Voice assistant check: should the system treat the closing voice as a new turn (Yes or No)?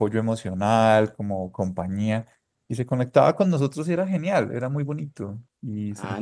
Yes